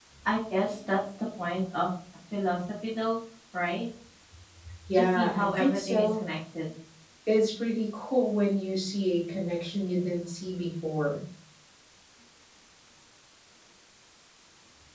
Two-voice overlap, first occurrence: 4.9 s

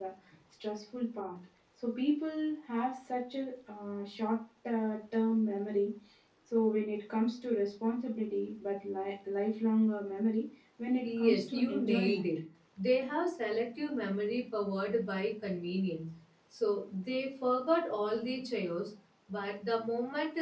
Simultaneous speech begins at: 11.0 s

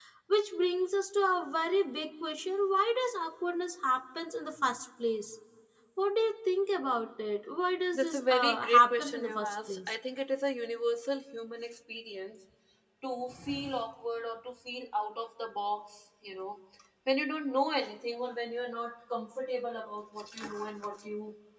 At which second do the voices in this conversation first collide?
7.9 s

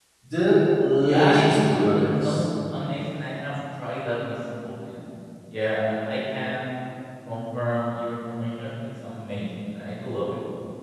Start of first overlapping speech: 1.0 s

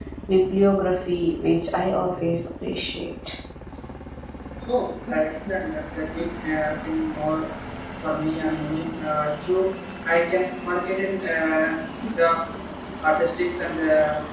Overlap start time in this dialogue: none

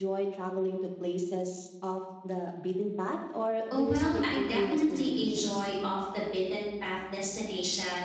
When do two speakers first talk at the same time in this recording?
3.7 s

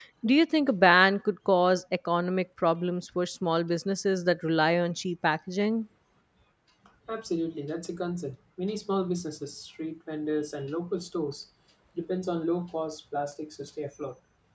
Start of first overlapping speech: none

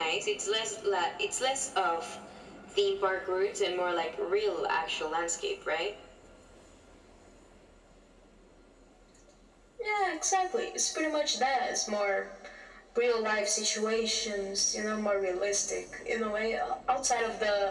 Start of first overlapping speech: none

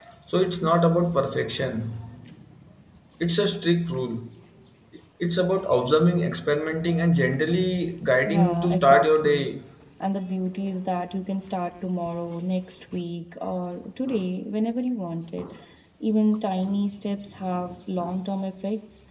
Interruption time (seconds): 8.3 s

